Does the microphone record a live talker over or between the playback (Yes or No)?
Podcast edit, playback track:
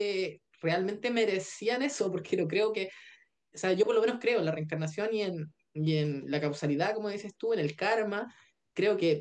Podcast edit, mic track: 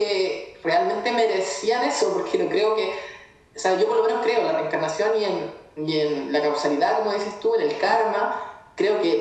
No